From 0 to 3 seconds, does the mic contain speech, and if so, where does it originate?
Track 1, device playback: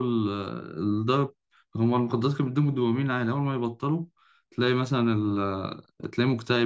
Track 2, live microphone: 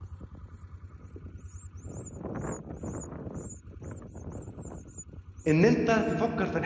neither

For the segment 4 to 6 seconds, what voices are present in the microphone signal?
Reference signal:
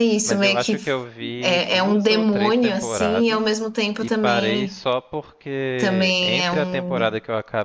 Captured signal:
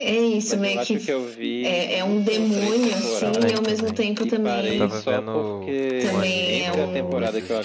both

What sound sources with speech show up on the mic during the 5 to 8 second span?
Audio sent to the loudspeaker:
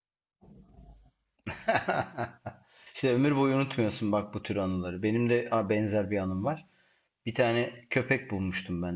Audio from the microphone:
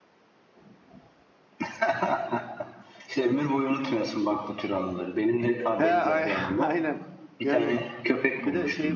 both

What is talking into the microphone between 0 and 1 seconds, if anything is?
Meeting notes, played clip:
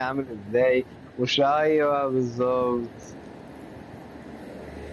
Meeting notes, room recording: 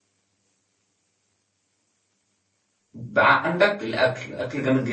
neither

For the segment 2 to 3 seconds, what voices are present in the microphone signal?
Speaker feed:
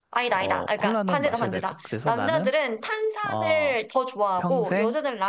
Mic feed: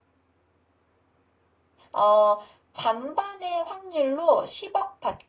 user only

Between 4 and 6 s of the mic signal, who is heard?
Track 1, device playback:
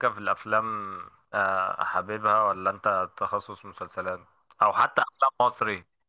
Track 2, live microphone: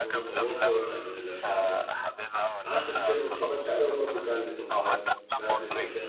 both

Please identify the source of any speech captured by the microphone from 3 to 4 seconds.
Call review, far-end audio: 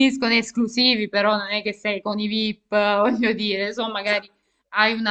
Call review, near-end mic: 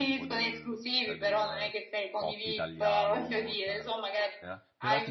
both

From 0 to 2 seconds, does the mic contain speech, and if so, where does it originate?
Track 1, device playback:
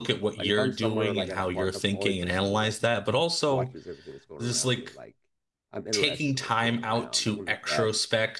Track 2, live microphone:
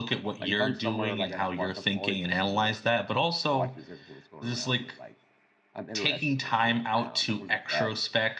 echo only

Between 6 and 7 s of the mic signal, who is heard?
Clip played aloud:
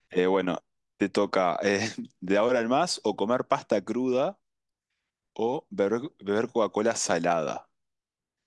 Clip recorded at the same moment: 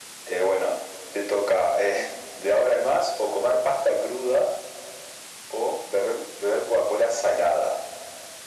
echo only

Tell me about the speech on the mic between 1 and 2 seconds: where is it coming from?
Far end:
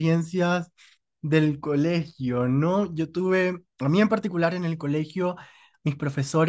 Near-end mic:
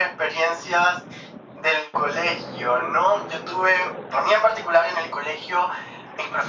echo only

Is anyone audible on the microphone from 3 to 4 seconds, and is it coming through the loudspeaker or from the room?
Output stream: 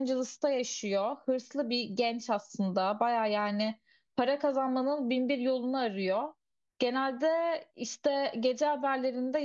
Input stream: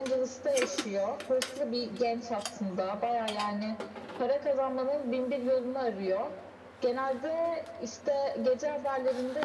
echo only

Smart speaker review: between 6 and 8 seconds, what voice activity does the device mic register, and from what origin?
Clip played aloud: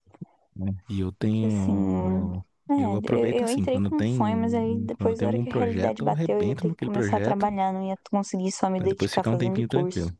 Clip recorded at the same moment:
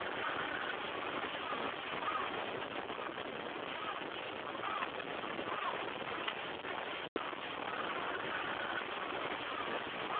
neither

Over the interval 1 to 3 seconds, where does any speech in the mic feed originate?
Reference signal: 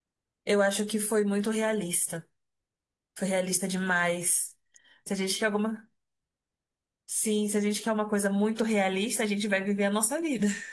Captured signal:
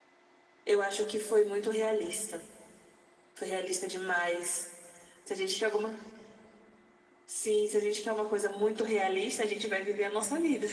echo only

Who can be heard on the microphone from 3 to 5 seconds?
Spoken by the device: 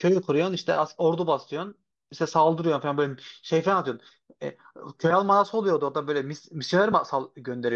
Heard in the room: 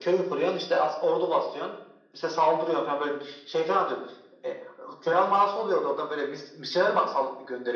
echo only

